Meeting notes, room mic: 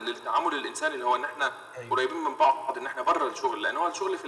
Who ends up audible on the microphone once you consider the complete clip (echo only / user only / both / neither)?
both